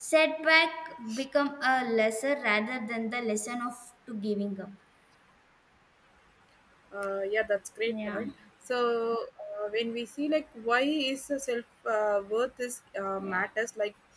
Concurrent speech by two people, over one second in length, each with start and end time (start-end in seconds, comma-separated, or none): none